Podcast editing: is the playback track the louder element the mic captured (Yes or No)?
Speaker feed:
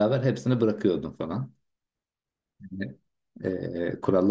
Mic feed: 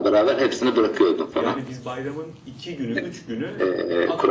Yes